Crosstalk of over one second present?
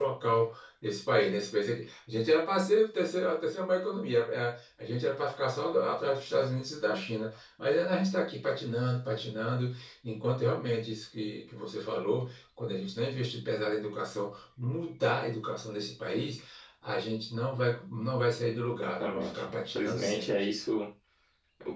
Yes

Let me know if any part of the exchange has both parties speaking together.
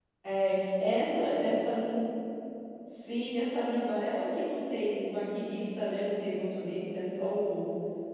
No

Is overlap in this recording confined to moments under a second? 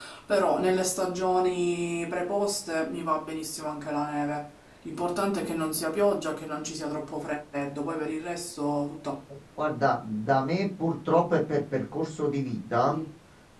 Yes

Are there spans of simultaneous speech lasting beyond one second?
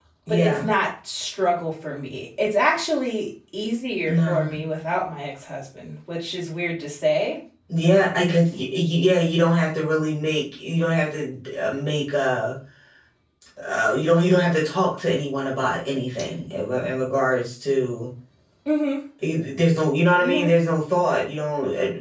No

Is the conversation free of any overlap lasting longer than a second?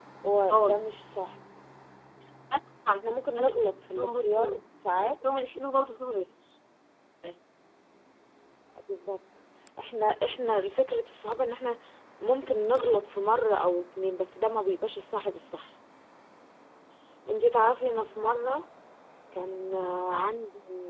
No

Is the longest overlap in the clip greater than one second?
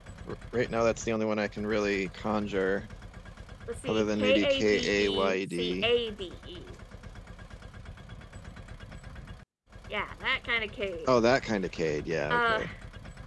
Yes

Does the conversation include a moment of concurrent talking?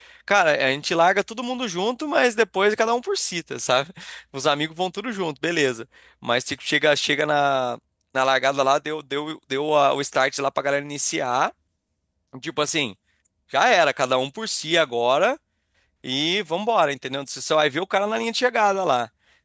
No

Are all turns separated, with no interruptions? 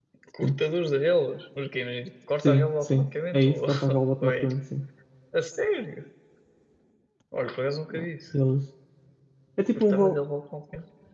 No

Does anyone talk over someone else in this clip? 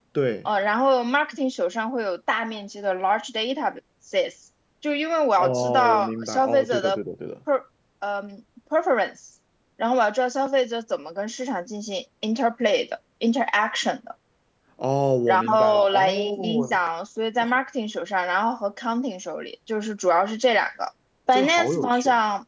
Yes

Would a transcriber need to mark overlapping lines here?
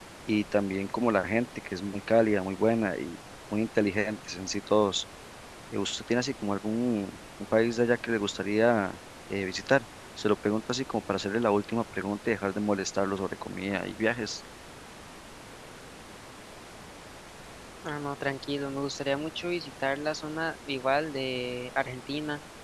No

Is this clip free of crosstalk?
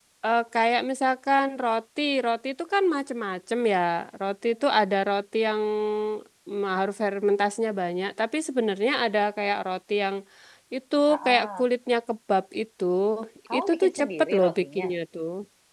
No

